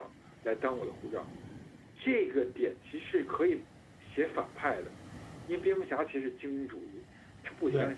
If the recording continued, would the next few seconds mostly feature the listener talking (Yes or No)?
No